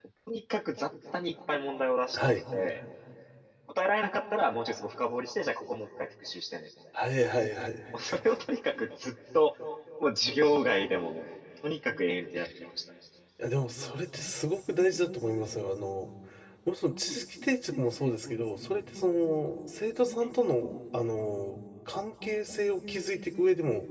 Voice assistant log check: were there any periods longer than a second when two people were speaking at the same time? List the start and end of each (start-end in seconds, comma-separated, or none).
none